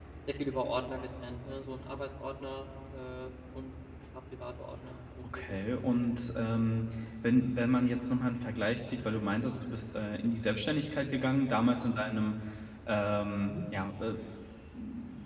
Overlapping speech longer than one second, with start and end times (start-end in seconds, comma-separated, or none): none